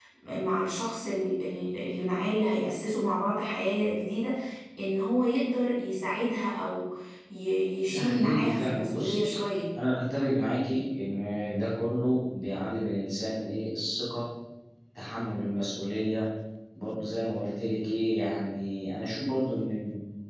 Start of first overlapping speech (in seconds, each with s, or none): 7.9 s